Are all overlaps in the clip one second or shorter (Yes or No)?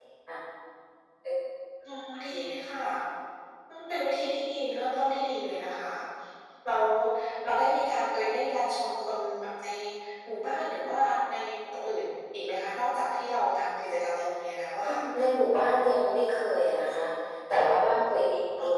Yes